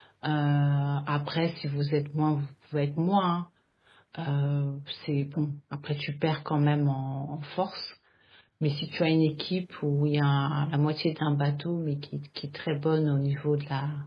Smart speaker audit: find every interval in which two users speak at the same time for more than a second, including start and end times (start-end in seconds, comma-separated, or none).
none